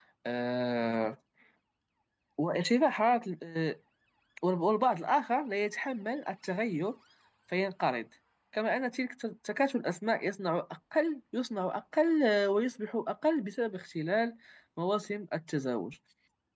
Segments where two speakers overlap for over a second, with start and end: none

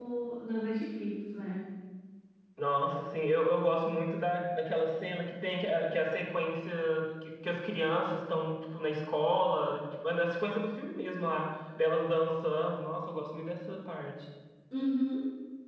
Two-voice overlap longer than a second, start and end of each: none

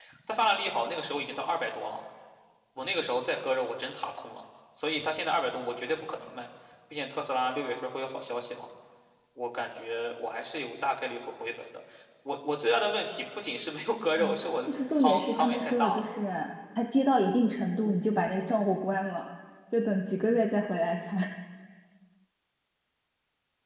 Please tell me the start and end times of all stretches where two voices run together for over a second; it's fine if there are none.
14.2-16.1

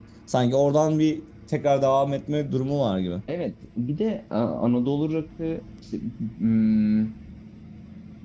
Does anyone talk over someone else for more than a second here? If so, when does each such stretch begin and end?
none

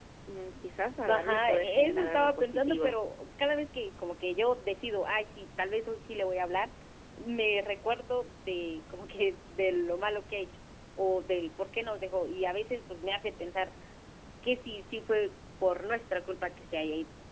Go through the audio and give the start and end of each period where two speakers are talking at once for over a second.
1.1-3.0

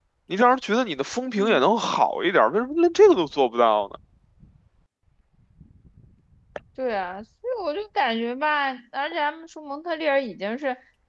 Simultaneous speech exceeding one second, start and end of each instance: none

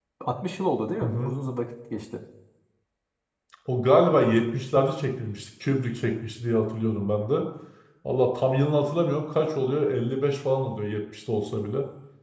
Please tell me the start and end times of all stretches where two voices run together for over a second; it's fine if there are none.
none

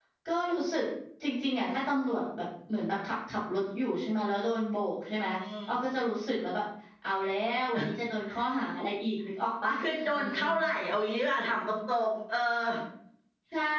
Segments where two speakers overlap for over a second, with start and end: none

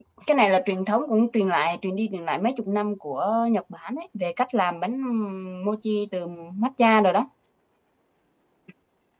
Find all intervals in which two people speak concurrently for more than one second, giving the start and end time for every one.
none

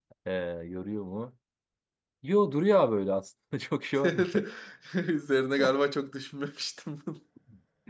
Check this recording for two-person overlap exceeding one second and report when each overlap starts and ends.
none

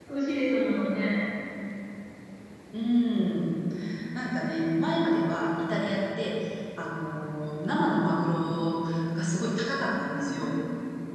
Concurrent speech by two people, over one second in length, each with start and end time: none

